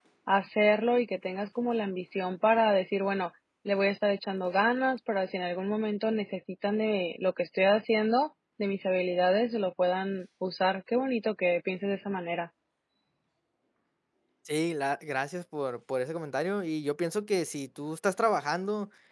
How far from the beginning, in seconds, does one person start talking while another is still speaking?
none

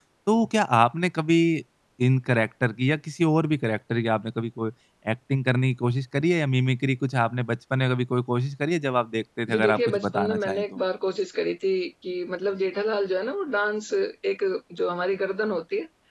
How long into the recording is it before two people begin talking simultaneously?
9.5 s

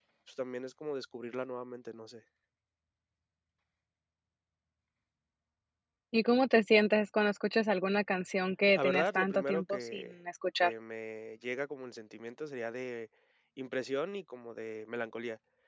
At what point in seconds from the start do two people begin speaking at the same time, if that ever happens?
8.8 s

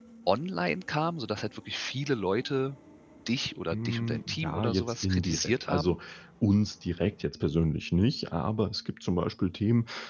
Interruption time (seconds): 3.7 s

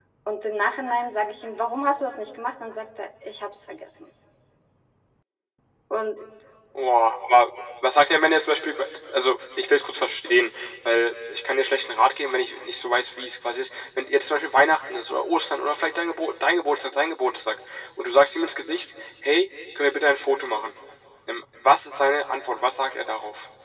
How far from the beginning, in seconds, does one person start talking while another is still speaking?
none

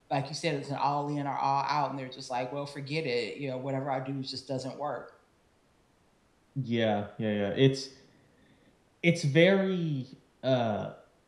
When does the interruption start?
none

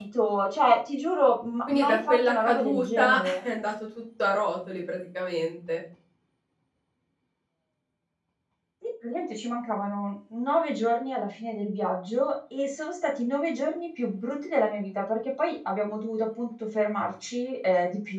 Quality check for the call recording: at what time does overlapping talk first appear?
1.7 s

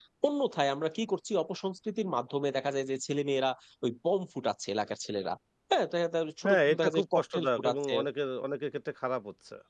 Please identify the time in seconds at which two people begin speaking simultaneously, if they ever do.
6.4 s

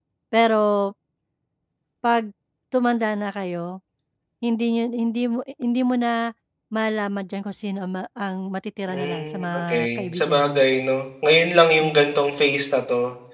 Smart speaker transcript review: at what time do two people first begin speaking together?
8.9 s

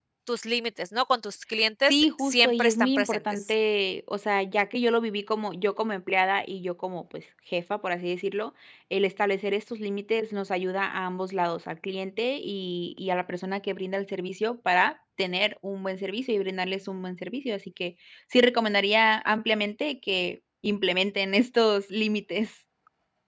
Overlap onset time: 1.9 s

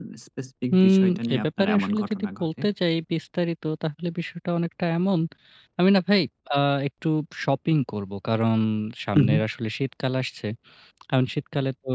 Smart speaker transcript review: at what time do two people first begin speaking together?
0.7 s

